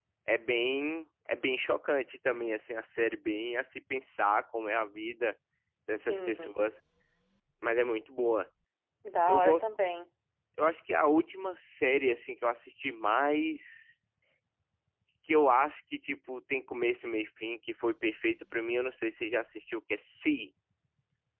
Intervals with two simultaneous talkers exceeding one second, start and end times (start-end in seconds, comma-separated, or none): none